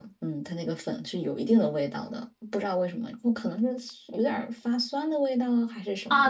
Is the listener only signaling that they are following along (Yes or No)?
No